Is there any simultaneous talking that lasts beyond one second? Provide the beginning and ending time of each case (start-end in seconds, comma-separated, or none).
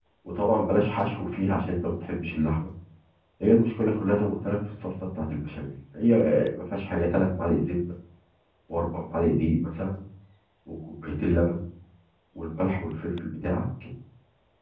none